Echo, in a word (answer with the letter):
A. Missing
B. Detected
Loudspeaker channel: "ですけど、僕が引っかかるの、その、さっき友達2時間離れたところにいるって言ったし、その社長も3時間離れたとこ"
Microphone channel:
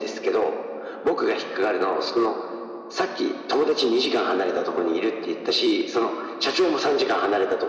B